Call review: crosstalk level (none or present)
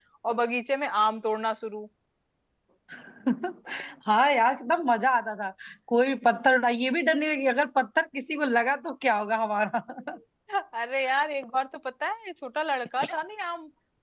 none